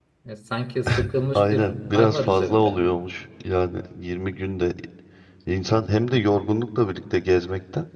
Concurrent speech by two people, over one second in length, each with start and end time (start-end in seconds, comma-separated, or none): 1.4-2.8